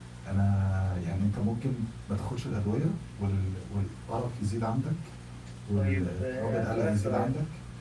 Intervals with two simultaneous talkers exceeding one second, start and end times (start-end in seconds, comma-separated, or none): 5.8-7.3